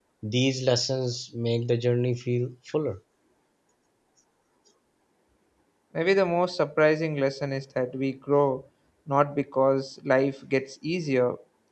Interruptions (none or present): none